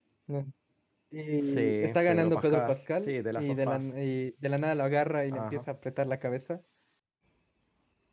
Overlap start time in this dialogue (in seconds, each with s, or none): 1.4 s